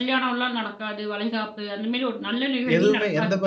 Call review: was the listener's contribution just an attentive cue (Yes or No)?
No